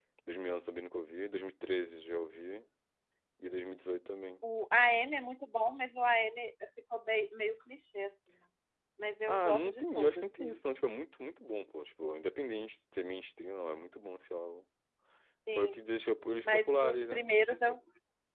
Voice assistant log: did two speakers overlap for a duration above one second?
Yes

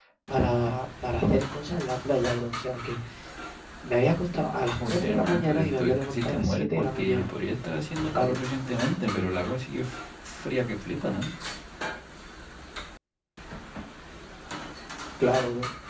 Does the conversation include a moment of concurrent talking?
Yes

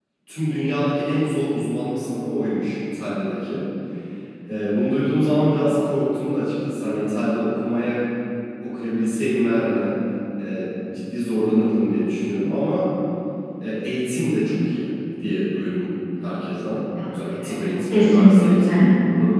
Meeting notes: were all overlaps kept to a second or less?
No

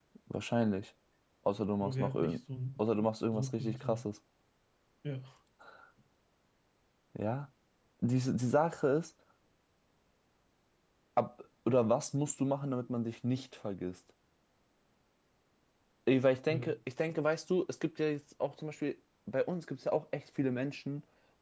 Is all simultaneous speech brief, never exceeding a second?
No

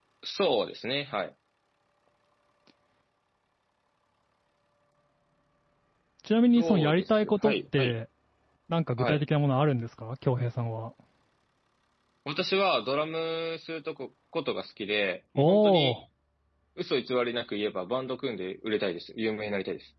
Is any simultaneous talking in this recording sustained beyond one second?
Yes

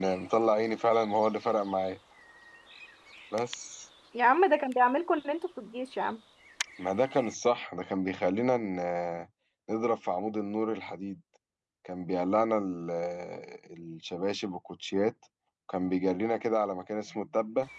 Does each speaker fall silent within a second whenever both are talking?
Yes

